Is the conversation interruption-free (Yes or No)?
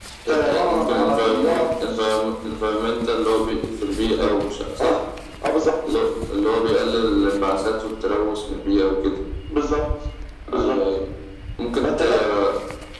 No